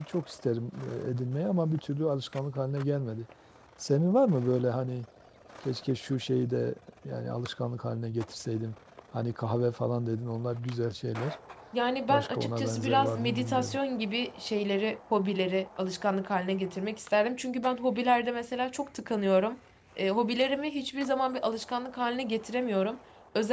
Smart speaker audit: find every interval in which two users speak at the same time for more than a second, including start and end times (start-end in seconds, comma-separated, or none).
12.1-13.8